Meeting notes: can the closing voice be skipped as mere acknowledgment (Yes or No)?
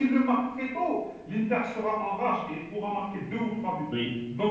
Yes